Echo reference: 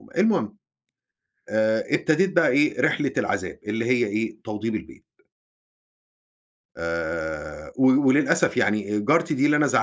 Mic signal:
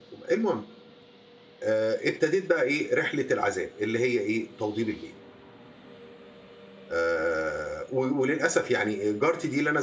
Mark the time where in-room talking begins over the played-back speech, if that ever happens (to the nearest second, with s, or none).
none